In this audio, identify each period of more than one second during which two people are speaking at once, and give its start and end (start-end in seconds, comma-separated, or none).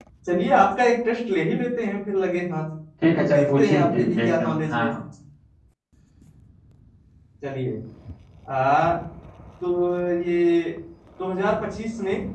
3.3-4.9